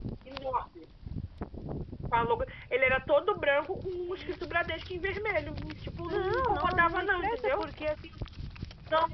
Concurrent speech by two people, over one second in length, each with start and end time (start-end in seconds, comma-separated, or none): 6.1-7.7